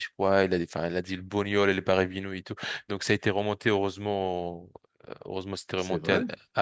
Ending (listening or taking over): listening